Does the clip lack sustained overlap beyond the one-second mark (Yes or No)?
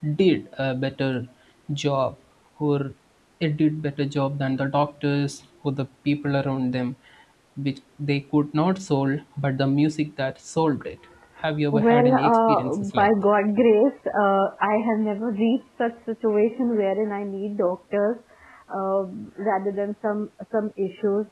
No